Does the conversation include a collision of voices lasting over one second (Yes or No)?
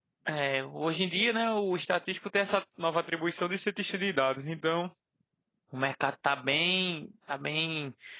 No